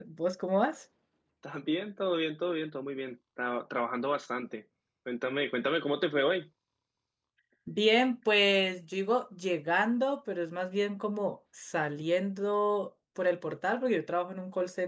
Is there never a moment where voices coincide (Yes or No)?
Yes